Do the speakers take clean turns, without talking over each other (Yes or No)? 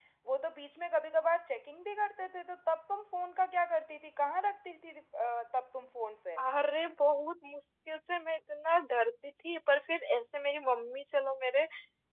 Yes